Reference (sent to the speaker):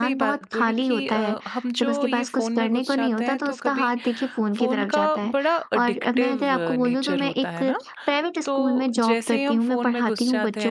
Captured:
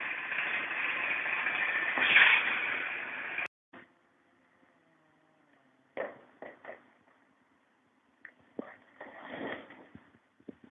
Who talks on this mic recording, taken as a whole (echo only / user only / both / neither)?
neither